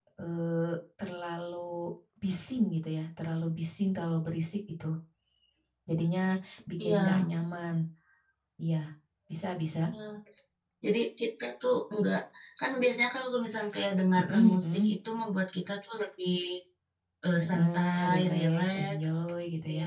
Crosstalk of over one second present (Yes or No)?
Yes